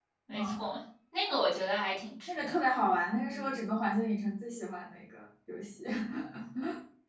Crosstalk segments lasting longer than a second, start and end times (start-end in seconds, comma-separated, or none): none